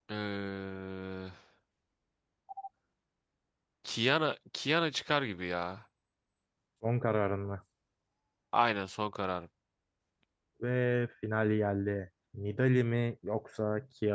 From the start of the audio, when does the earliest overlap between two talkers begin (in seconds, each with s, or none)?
none